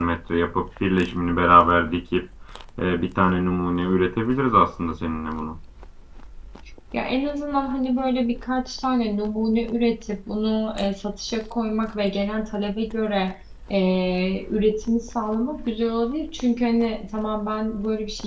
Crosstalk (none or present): none